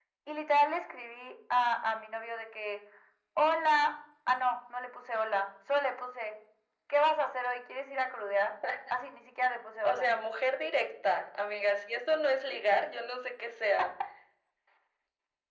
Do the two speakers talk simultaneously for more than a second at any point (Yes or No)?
No